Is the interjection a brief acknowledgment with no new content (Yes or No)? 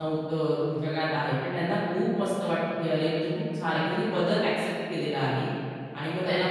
Yes